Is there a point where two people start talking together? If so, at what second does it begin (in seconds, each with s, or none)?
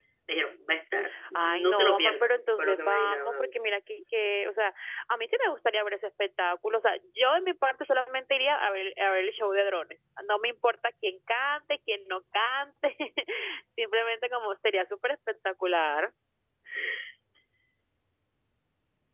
1.4 s